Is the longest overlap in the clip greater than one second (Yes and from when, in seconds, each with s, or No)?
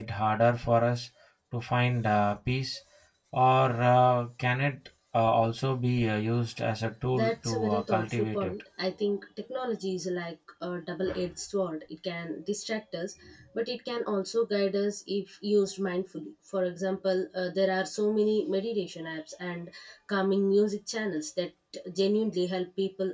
Yes, from 7.1 s